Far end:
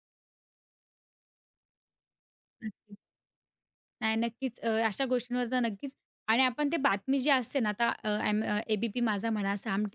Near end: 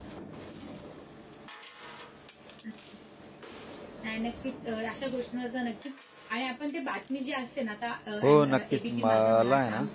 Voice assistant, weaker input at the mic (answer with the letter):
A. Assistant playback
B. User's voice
A